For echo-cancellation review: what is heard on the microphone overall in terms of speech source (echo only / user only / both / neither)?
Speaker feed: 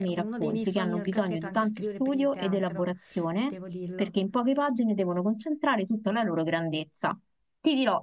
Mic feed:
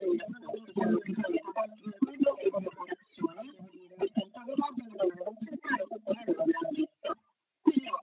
echo only